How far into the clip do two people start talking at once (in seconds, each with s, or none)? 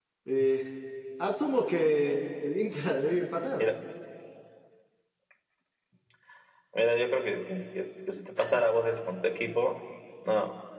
none